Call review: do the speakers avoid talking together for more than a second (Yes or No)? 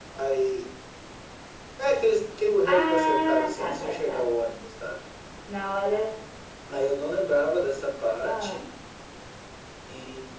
No